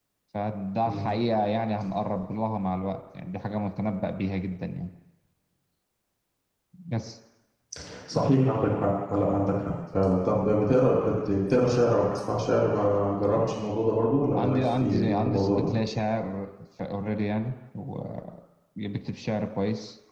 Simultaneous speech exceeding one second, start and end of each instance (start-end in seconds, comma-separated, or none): 14.4-15.7